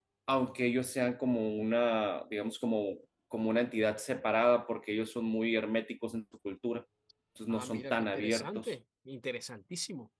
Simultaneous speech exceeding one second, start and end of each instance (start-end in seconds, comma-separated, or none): 7.5-8.7